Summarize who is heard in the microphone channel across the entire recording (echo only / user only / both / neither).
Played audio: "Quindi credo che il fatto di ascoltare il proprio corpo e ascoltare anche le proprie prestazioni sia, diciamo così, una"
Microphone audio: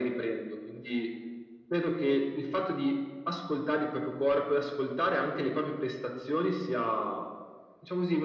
echo only